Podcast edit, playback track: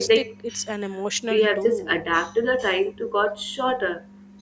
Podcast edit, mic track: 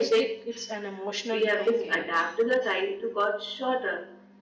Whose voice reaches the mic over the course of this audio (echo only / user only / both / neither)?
both